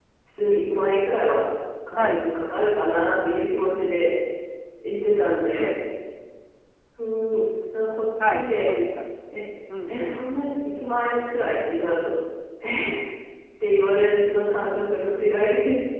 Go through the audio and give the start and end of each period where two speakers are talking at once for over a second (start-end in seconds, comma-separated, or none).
none